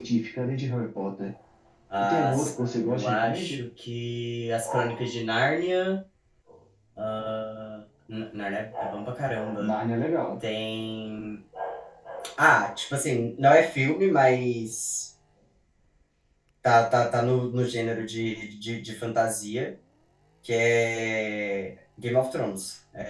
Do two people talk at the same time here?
Yes, from 2.1 s

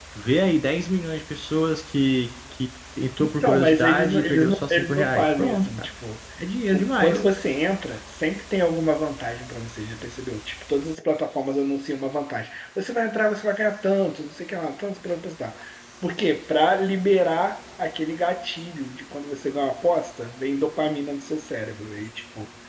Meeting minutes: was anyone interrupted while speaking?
Yes, from 3.2 s

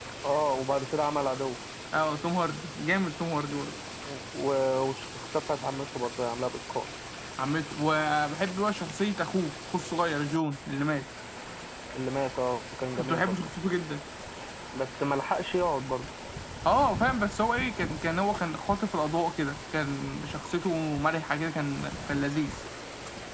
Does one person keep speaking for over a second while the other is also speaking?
No

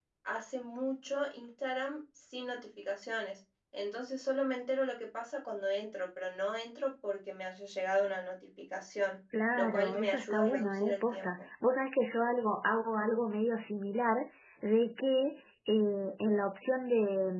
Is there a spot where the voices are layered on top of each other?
Yes, from 9.5 s

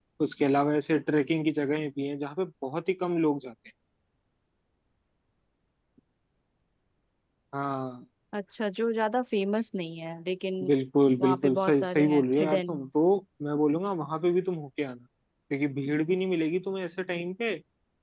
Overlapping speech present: Yes, from 11.2 s

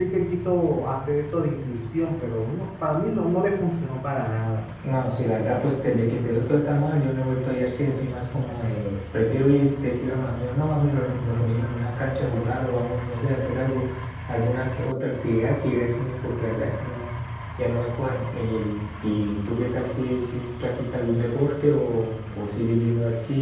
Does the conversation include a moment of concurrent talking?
No

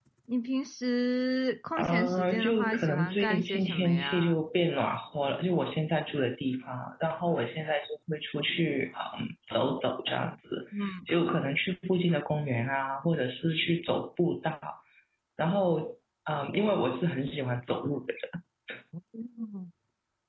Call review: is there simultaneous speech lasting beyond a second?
Yes, from 1.8 s

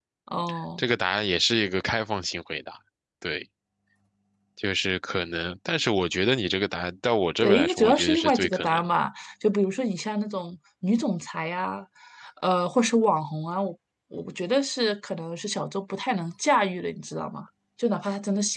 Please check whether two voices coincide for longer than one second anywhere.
Yes, from 7.4 s

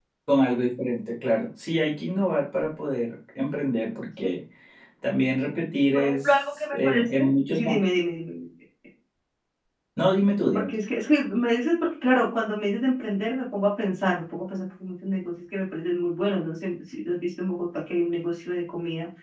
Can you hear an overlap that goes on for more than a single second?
Yes, from 6.0 s

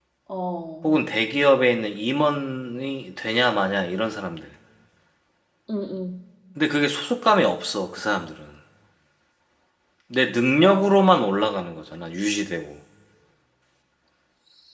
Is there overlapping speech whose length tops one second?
No

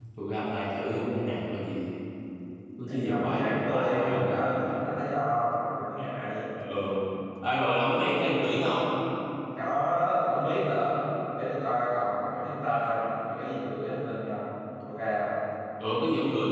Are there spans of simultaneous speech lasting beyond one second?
Yes, from 2.9 s

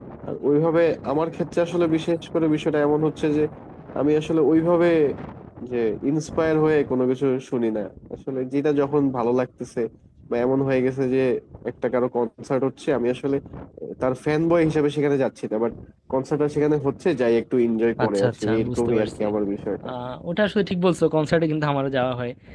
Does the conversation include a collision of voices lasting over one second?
Yes, from 18.0 s

